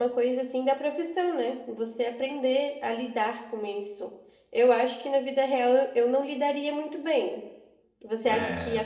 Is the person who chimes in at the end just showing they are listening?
Yes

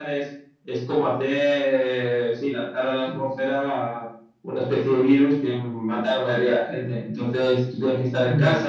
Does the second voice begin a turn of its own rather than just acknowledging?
No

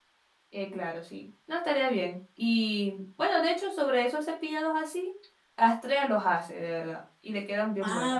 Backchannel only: No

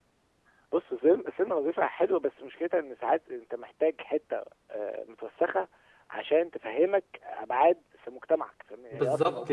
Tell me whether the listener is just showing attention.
No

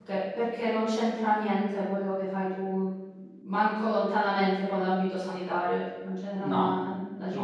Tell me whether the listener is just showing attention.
No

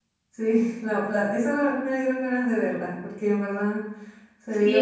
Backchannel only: No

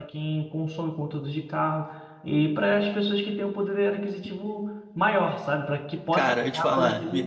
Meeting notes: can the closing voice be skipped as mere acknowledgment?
No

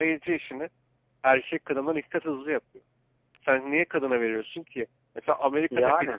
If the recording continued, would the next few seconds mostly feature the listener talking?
No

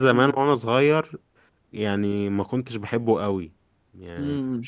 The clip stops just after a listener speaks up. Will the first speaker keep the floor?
Yes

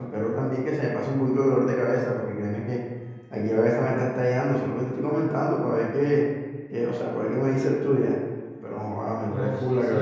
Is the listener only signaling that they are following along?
No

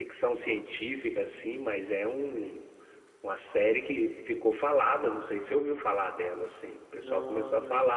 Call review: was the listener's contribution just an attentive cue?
Yes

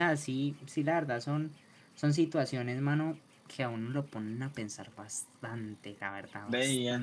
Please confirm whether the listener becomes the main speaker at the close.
Yes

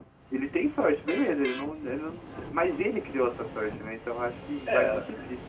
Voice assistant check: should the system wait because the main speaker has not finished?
Yes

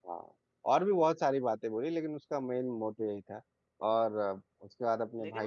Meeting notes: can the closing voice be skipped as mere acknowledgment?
No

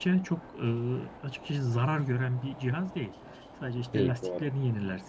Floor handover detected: No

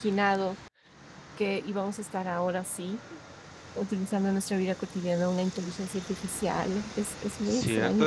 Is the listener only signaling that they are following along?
No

